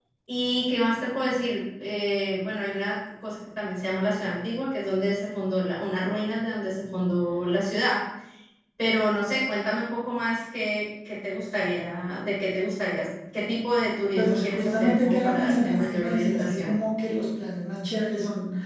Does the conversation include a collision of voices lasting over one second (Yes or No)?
Yes